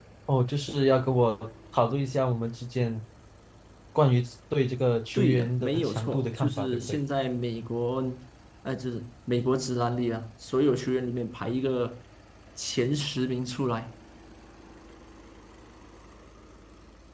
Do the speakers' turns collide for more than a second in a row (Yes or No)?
Yes